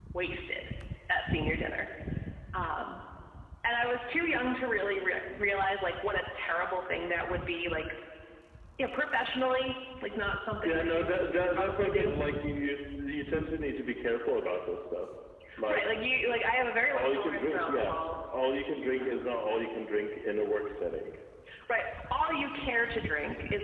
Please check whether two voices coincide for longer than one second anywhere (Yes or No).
Yes